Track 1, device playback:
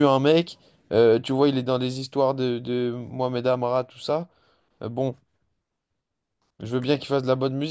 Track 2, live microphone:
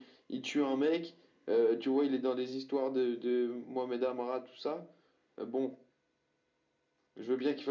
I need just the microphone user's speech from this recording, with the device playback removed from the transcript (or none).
none